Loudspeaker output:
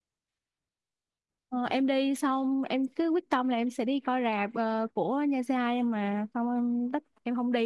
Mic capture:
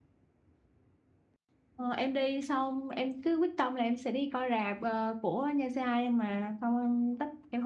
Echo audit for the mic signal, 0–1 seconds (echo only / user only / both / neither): neither